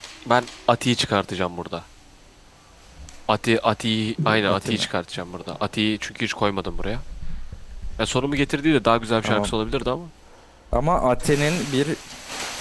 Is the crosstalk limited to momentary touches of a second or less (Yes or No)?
Yes